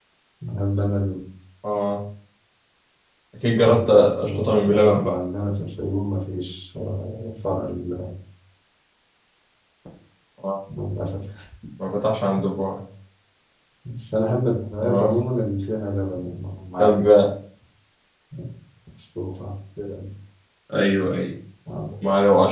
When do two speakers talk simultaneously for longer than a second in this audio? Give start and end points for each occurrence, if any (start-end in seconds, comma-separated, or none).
3.6-5.1